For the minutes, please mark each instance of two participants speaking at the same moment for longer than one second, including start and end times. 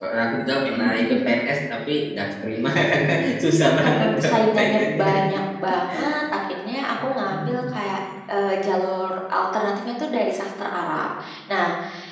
3.8-5.1

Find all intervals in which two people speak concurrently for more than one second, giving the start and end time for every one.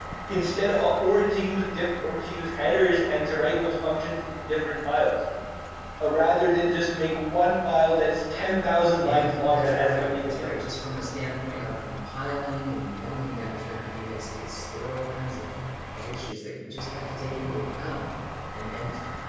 9.0-10.5

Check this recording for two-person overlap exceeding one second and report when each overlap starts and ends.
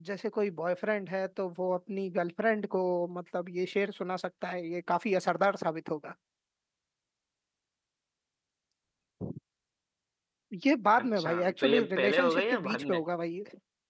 11.0-13.0

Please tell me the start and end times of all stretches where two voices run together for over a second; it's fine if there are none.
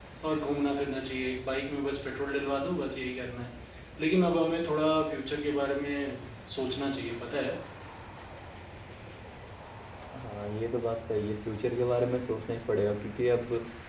none

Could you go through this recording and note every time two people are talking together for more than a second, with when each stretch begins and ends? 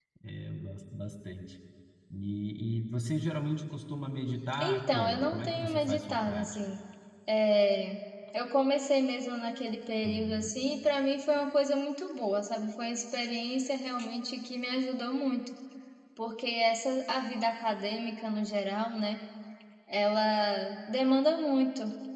4.6-6.6

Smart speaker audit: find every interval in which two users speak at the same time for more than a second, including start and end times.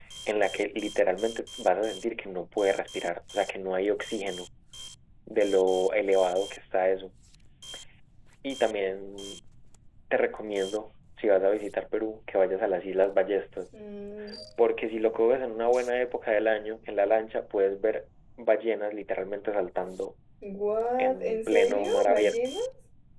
21.0-22.3

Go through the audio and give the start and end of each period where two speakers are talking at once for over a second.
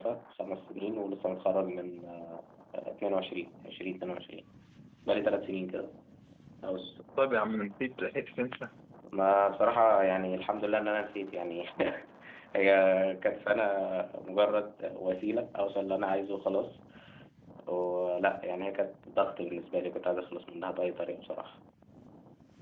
none

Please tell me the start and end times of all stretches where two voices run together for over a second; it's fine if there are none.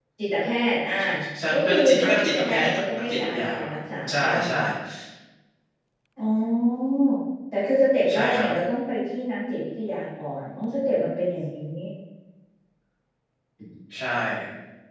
1.5-3.7

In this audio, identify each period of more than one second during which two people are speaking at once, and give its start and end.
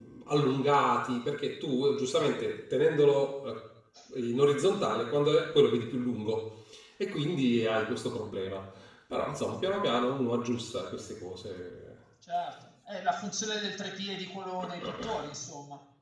none

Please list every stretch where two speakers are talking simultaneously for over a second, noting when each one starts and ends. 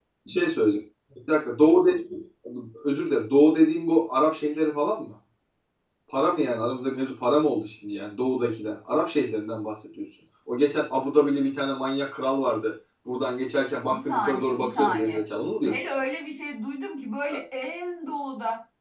13.9-15.2

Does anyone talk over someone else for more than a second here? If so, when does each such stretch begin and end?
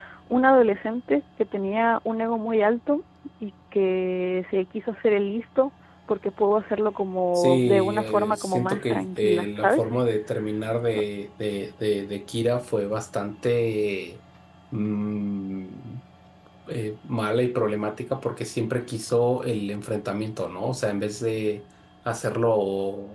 7.3-9.8

